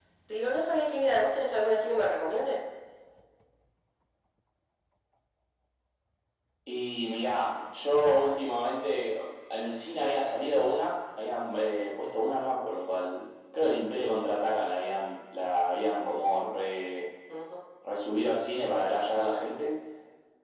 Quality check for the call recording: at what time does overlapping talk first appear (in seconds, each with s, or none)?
none